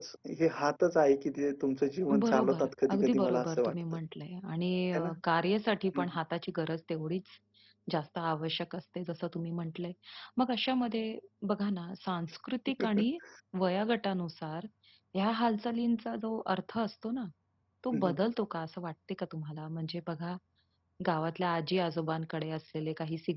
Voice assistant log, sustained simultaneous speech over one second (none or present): present